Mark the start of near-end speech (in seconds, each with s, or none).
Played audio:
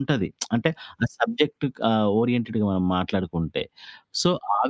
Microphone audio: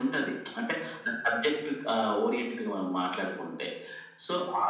none